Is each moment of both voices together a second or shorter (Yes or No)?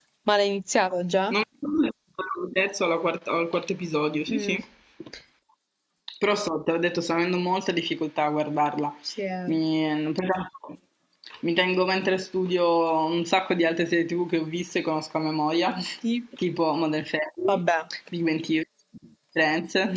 Yes